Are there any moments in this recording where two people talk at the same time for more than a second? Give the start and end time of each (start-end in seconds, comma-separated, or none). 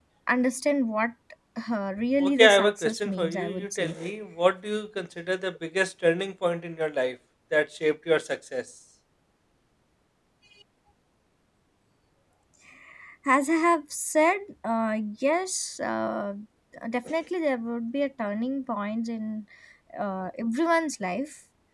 2.2-4.0